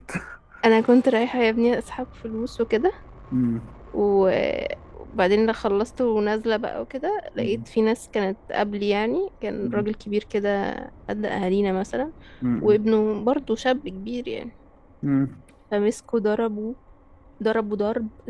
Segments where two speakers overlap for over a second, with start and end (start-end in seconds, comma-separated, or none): none